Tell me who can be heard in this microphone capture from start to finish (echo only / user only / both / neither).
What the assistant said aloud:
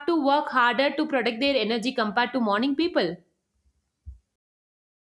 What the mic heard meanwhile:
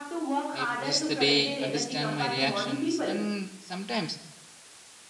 both